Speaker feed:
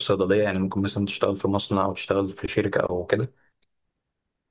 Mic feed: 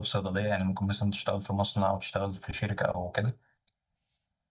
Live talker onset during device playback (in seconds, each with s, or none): none